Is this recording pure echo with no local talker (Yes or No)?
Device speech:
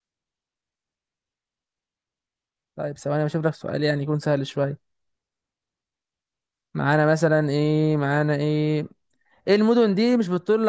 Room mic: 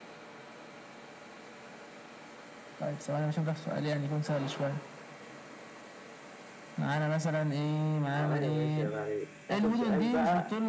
No